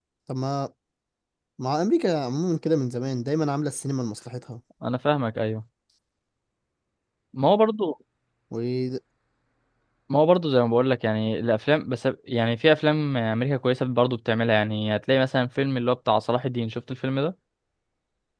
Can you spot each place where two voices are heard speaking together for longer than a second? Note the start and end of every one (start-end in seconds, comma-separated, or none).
none